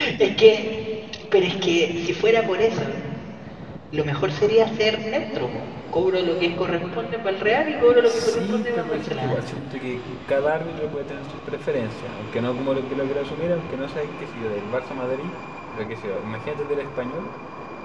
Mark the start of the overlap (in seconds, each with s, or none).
8.0 s